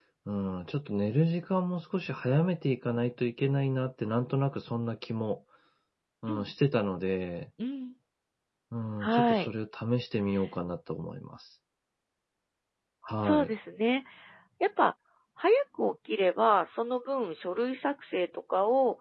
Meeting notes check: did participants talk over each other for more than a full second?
No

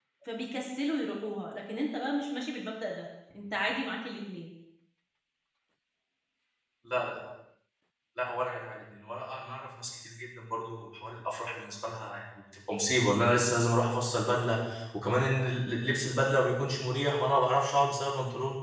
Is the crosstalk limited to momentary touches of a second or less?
Yes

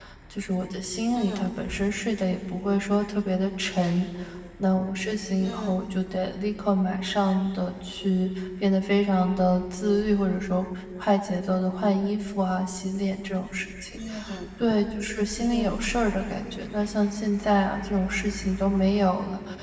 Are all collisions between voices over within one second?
Yes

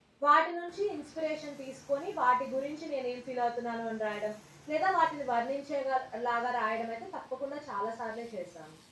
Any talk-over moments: No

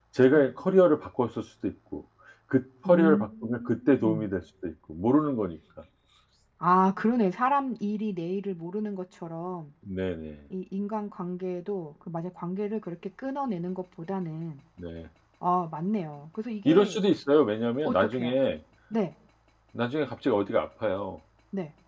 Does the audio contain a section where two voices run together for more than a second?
Yes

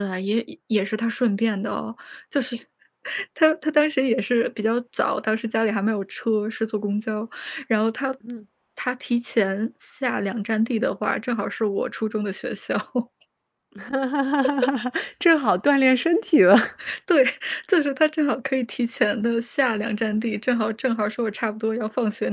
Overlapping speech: No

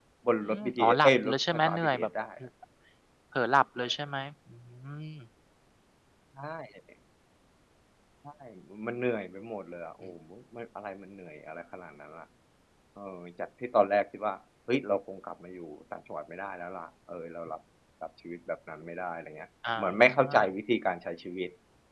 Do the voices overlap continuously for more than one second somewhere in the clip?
Yes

